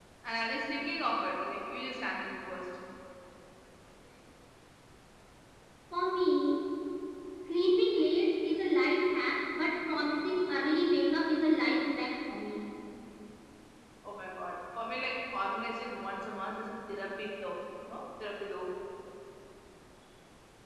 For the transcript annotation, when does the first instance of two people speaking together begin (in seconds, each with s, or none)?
none